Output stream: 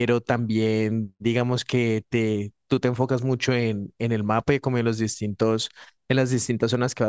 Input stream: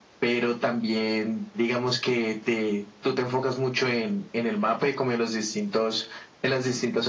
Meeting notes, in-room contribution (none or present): none